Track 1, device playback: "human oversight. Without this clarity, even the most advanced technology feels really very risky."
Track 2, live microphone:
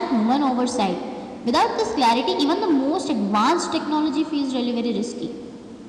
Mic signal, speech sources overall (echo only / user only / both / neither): echo only